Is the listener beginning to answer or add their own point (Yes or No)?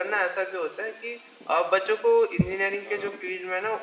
No